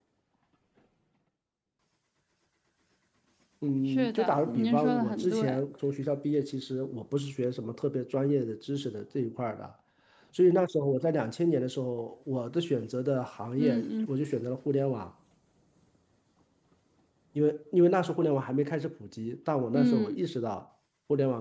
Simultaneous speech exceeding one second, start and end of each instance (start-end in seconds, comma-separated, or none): 3.9-5.6